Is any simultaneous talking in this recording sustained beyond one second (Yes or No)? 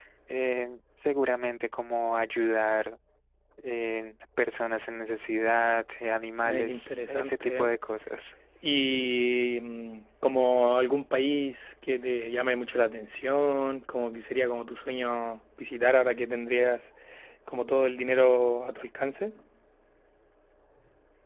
Yes